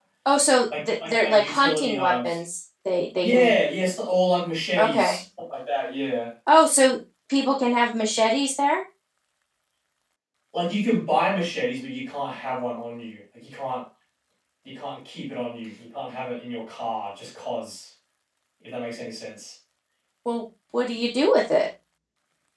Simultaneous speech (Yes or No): Yes